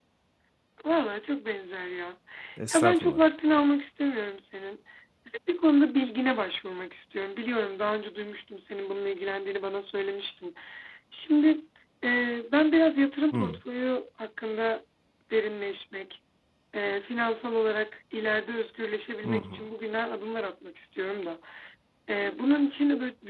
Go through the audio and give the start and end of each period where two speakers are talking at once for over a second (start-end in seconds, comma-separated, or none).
none